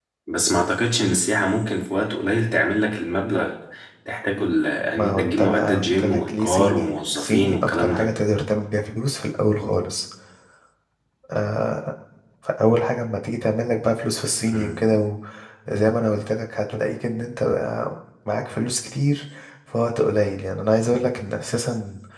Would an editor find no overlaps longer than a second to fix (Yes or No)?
No